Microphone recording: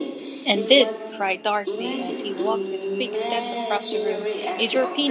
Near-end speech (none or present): present